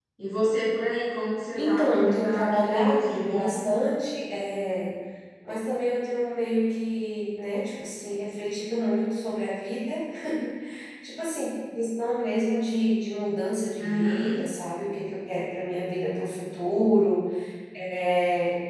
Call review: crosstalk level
present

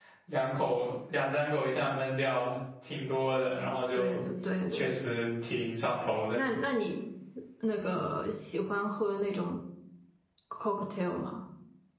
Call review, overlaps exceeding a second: none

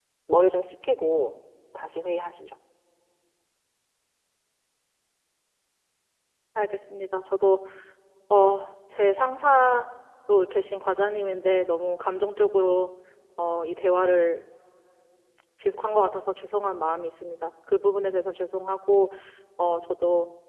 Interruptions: none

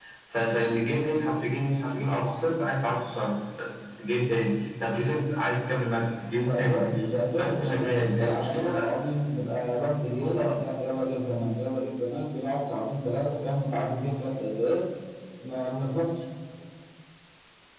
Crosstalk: present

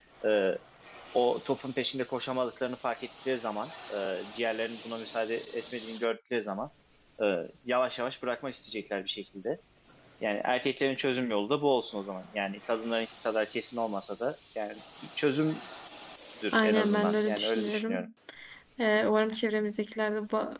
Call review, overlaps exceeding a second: present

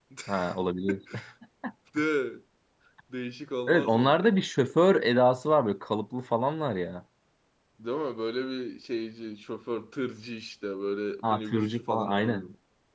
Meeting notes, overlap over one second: present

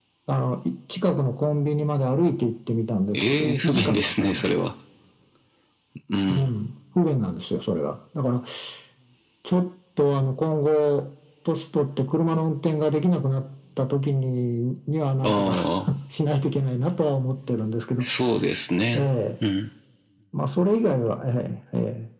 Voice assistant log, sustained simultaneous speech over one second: present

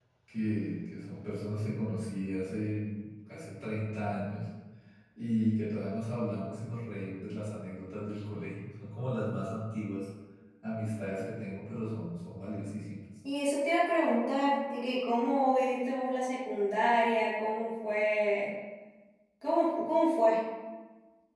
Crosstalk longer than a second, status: none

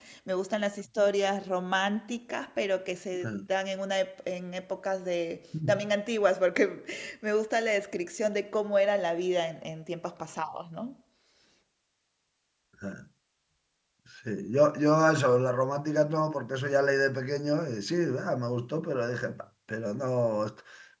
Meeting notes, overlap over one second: none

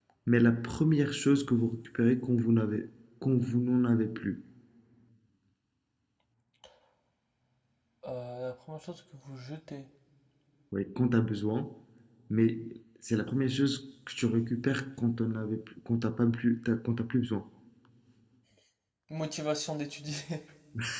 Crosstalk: none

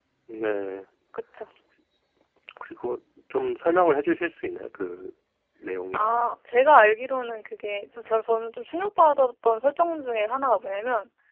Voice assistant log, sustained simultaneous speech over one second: none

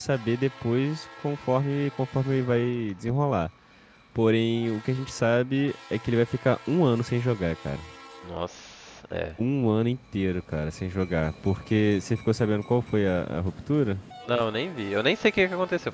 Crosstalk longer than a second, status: none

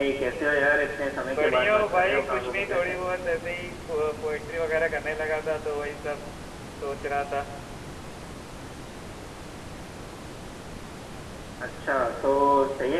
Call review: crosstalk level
present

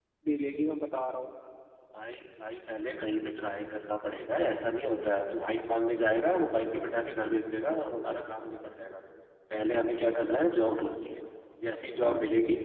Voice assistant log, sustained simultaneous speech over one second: none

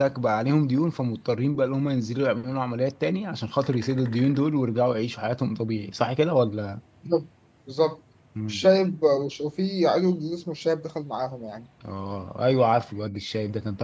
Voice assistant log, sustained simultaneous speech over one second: none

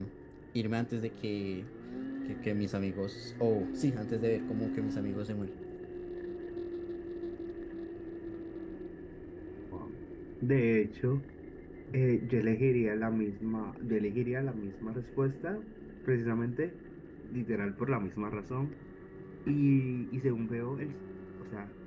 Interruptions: none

